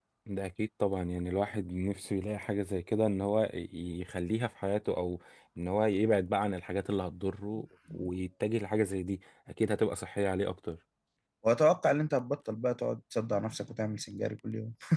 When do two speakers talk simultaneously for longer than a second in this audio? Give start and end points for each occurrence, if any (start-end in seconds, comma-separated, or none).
none